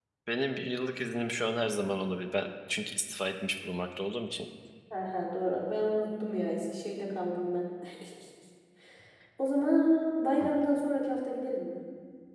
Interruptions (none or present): none